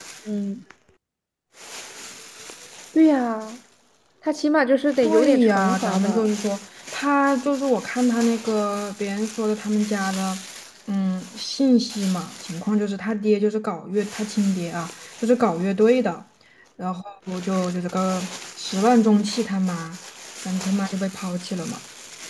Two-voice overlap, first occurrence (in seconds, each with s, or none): 5.0 s